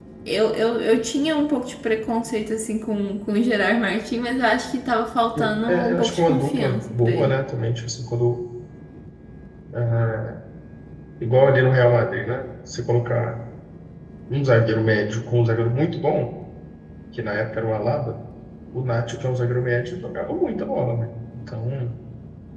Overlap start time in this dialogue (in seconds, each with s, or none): 5.4 s